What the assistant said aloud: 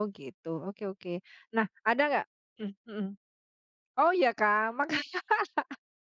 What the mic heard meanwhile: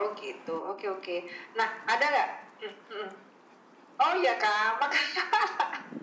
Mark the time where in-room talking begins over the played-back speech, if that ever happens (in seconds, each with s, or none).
none